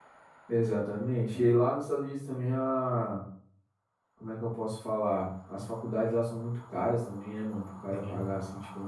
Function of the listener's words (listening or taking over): listening